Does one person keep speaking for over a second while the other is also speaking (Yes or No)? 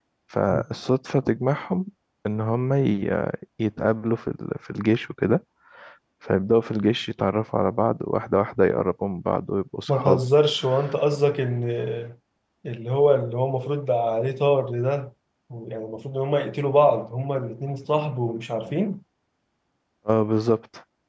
No